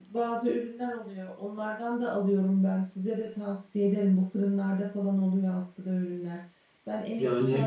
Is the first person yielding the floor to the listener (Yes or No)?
No